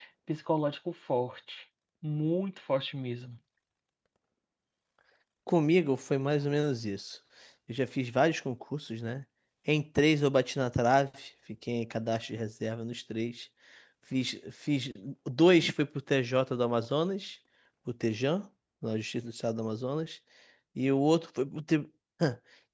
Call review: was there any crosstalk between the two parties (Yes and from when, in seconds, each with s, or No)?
No